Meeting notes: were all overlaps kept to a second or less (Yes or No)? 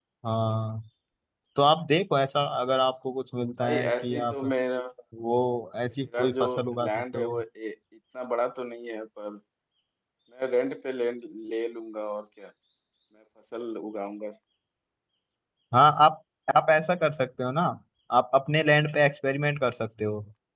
No